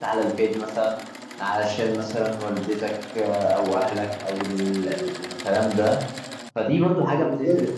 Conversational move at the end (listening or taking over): listening